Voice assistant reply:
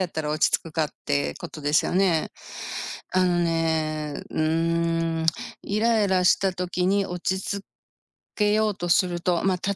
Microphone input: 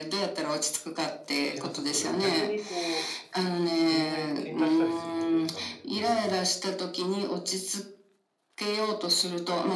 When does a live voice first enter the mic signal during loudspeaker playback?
1.4 s

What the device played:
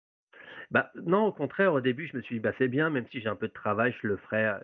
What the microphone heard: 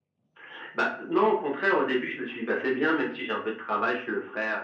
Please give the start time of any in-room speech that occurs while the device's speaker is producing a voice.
none

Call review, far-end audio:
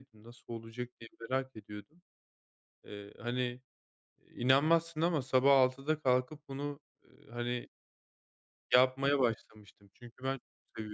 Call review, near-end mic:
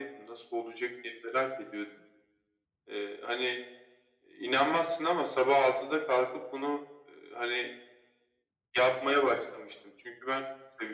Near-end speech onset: none

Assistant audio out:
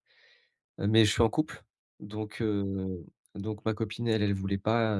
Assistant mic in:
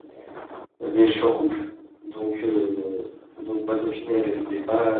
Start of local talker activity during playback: none

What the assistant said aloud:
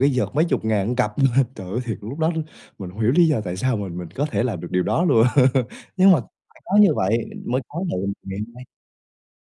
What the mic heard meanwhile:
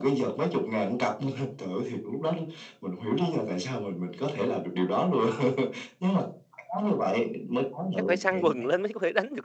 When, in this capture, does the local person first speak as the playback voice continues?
7.9 s

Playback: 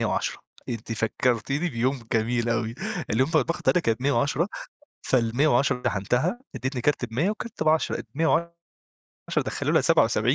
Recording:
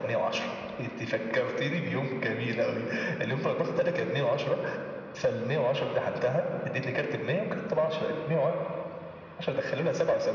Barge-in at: none

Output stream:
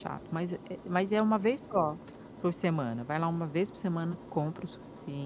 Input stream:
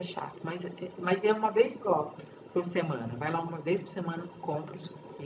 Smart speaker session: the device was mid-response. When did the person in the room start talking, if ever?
none

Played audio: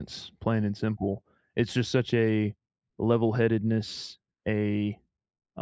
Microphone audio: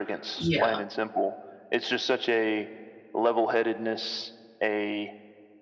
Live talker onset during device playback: 0.4 s

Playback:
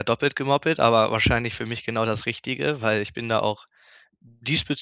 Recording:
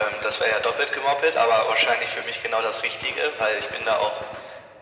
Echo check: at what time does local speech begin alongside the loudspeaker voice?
none

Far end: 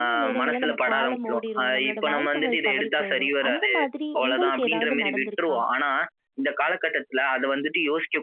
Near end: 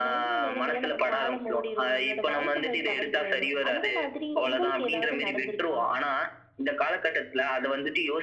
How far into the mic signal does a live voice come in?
none

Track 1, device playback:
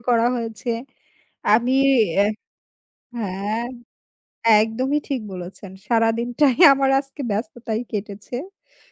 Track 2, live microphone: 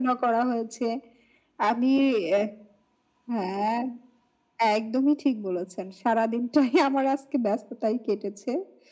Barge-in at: none

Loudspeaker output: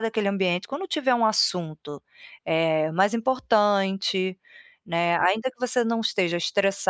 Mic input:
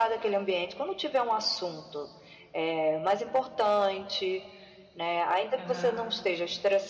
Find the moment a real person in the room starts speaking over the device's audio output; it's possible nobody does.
5.5 s

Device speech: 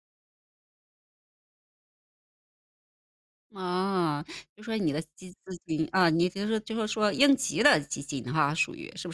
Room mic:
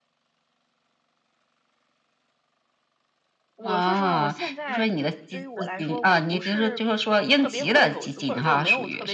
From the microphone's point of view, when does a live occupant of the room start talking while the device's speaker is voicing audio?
3.6 s

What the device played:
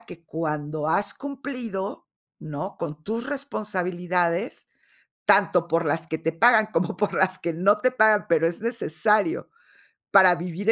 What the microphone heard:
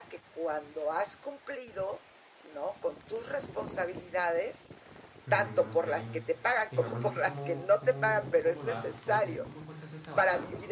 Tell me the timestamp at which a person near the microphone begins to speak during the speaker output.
5.2 s

